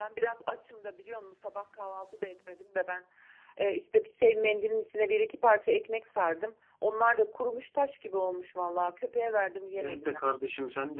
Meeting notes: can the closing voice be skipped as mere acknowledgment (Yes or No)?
No